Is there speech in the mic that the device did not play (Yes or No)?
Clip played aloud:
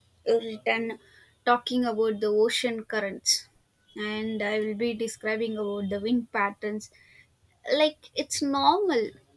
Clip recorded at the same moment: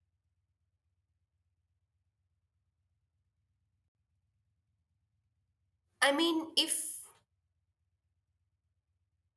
Yes